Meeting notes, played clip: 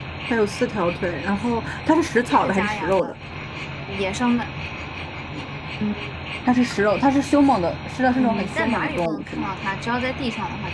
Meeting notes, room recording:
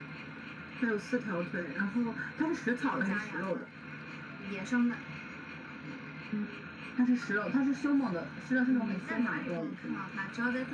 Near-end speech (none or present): none